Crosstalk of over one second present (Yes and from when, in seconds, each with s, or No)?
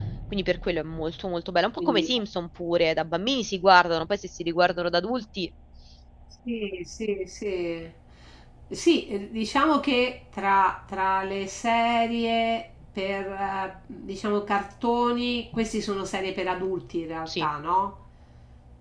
No